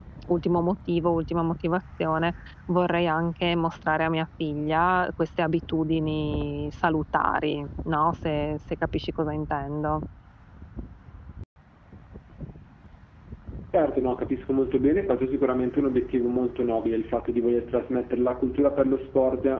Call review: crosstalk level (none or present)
none